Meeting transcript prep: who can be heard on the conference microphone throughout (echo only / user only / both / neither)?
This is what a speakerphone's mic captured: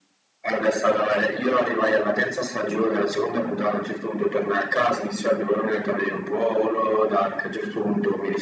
echo only